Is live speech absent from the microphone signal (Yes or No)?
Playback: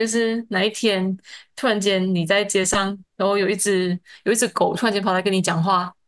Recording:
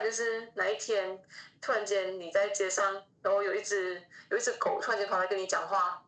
Yes